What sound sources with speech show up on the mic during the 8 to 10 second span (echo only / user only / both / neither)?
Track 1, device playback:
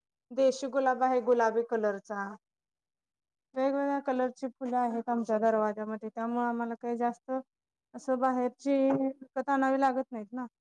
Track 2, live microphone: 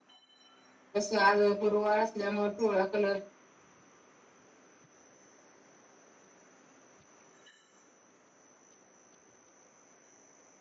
neither